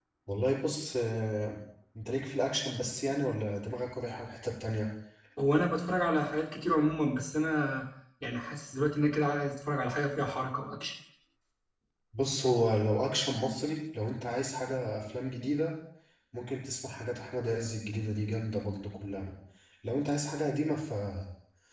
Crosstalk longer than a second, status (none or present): none